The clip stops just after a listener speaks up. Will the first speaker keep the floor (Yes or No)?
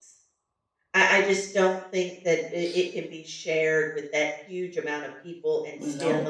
Yes